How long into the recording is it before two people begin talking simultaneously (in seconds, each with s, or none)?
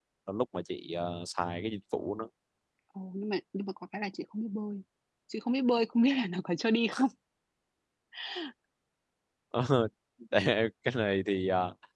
none